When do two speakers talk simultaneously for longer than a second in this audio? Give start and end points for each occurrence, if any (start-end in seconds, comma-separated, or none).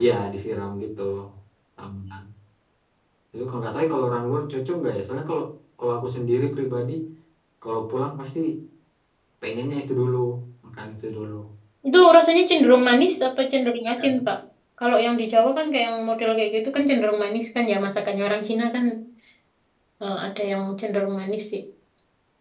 none